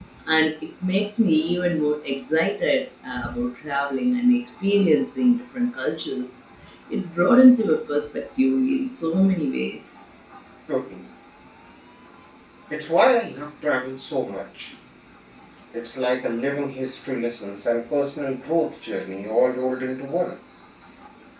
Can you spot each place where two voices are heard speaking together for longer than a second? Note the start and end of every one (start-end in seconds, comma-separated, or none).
none